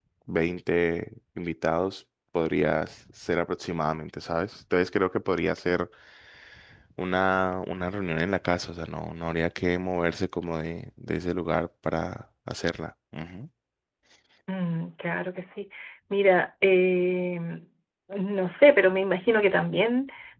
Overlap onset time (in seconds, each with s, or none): none